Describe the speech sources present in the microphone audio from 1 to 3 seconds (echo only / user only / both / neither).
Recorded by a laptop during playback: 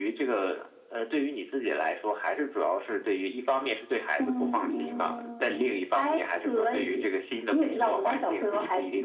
echo only